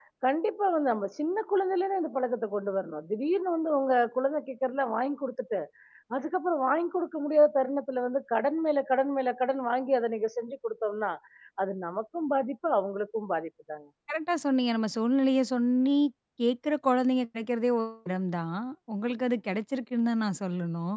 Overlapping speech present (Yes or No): No